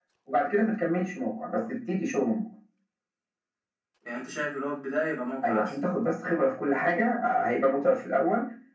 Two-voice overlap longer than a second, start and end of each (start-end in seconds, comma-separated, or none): none